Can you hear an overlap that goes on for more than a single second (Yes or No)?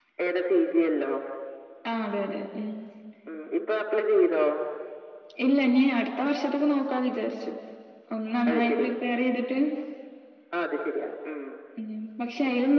No